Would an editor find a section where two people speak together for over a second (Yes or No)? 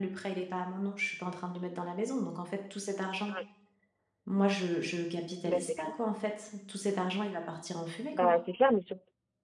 No